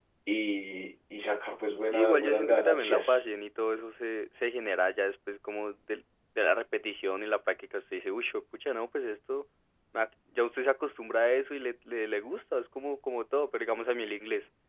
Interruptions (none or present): present